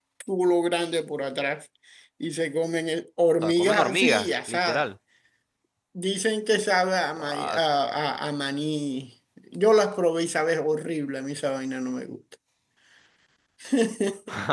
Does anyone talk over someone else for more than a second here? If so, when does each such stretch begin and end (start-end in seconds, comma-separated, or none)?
3.4-4.9